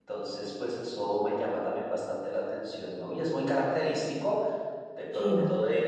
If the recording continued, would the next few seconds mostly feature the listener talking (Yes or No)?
No